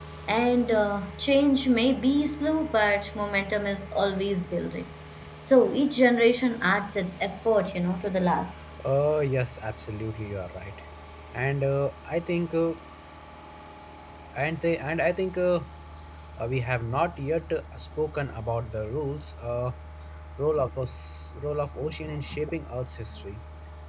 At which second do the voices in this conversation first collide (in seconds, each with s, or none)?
none